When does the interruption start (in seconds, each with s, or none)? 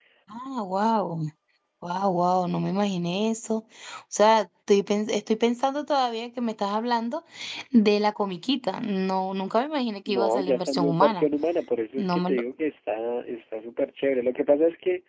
10.1 s